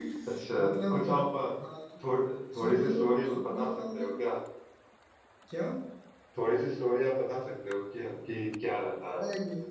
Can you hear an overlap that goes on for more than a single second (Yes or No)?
Yes